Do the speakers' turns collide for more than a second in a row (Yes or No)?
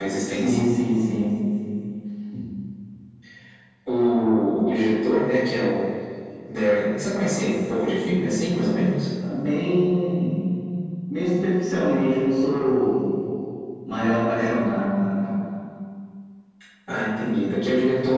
No